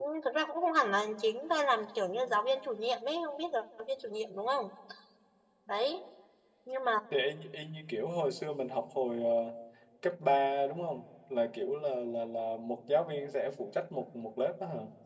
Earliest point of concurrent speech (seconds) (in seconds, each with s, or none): none